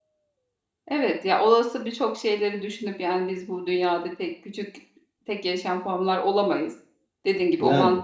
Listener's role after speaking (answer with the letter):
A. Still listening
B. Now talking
A